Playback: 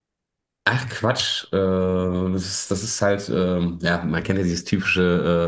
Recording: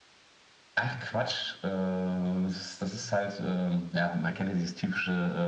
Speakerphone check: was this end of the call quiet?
No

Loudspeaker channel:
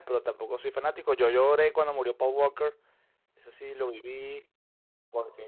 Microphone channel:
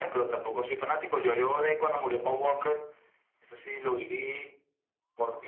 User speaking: No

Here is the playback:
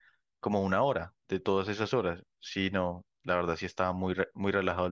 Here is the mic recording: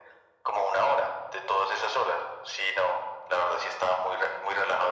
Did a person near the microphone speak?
No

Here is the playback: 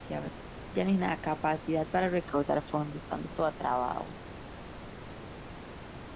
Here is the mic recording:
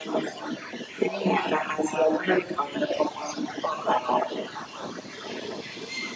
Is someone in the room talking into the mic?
No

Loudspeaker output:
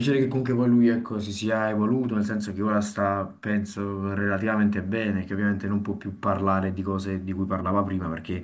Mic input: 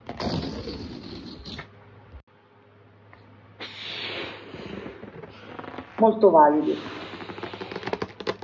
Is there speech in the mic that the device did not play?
Yes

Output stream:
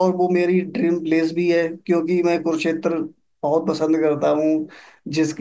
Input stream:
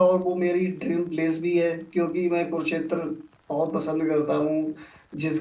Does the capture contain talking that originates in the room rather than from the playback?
No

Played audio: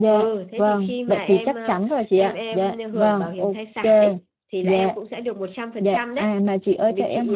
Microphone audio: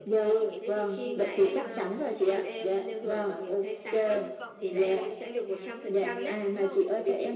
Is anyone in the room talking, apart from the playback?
Yes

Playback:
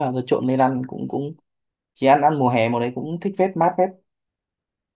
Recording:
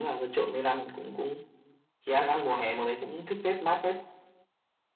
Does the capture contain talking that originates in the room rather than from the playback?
No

